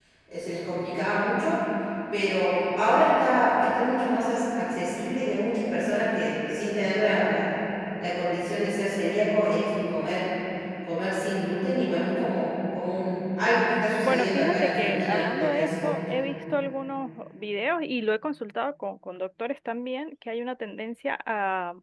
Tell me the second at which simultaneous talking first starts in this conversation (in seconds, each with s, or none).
14.0 s